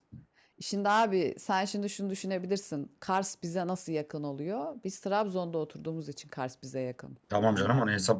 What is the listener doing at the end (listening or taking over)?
taking over